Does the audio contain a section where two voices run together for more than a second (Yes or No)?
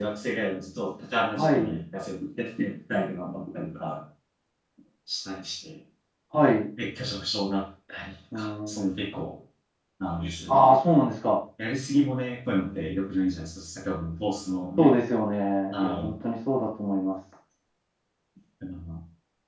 No